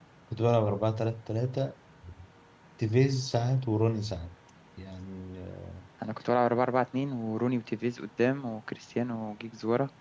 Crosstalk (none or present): none